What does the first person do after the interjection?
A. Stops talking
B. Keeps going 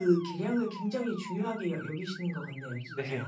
A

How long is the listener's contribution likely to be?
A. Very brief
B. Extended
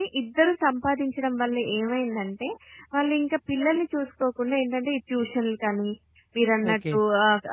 A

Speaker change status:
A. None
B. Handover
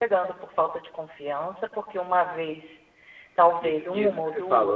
B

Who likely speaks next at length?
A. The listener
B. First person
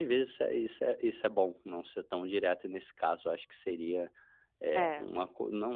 B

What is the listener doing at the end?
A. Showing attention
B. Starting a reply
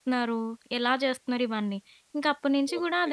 A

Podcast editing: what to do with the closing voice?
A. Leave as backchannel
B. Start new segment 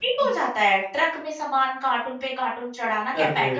A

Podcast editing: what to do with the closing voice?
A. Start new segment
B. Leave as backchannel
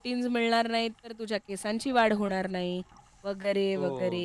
A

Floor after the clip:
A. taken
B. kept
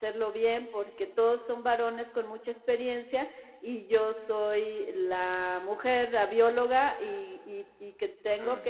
B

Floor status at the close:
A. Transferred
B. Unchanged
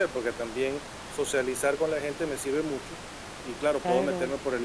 B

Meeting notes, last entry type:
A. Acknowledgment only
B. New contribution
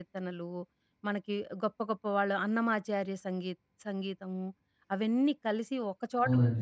A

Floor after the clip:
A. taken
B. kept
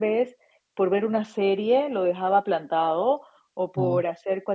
B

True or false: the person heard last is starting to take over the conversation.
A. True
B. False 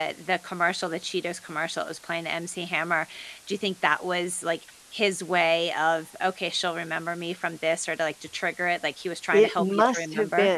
A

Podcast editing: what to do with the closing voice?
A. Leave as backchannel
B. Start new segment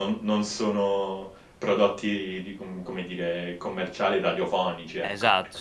B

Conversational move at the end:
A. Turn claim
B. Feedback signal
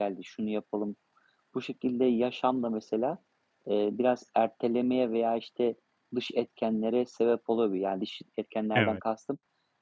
B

